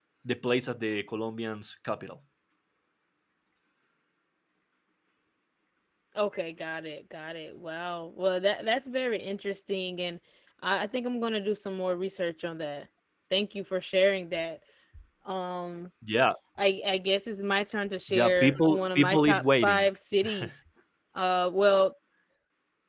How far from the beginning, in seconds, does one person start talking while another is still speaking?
18 s

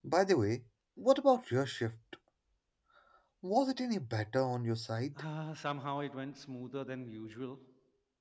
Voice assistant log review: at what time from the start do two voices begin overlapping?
none

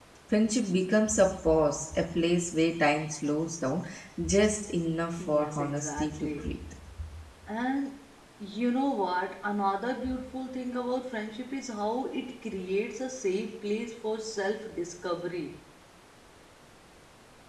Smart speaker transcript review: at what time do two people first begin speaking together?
5 s

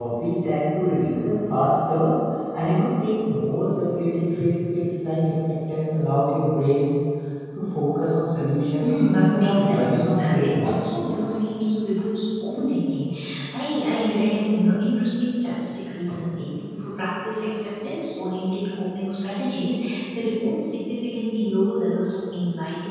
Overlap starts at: 9 s

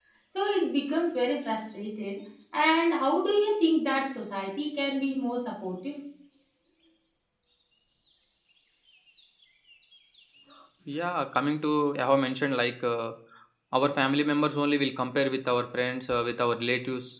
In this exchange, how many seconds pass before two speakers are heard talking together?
none

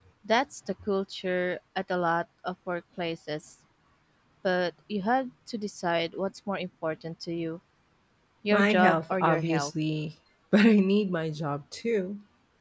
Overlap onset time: 9 s

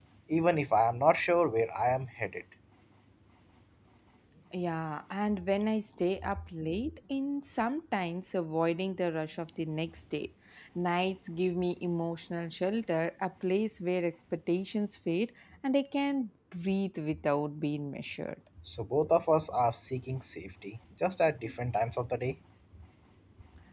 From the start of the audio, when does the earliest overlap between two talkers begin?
none

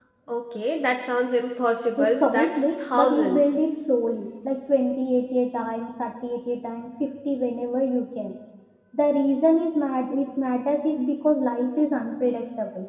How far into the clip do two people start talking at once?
2 s

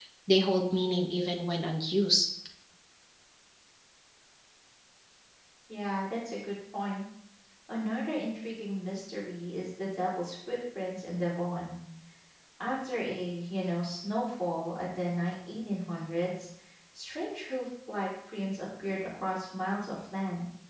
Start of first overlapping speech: none

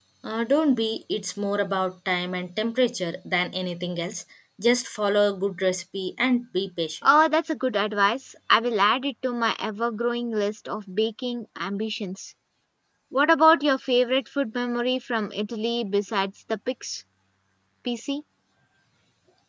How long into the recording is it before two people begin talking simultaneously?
none

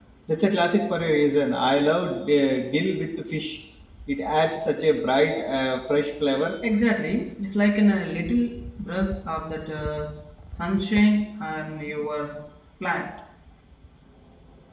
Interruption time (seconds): none

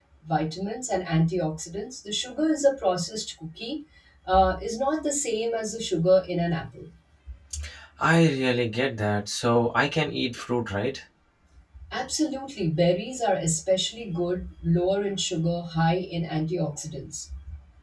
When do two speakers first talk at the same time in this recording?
none

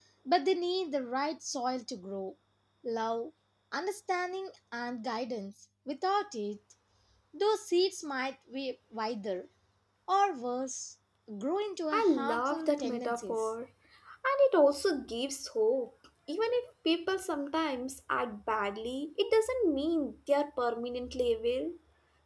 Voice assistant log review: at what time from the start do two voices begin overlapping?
12 s

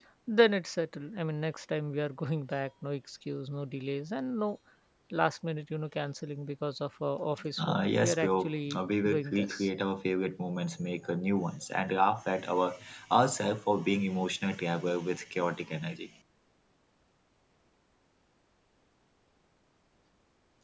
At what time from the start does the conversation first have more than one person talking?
8 s

